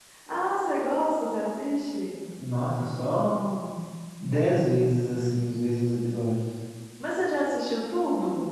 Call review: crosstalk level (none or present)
none